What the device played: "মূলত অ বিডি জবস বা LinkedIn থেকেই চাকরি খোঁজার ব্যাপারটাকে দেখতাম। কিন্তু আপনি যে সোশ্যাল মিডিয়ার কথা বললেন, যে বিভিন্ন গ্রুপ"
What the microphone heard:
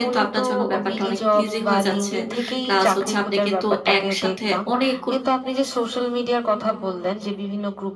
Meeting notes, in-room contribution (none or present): present